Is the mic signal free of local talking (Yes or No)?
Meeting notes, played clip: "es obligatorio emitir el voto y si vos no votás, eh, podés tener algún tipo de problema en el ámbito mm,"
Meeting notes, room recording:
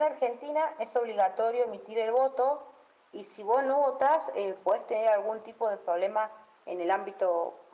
Yes